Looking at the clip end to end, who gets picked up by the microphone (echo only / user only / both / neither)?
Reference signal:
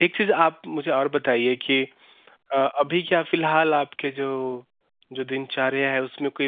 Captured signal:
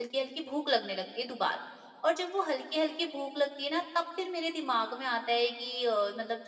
user only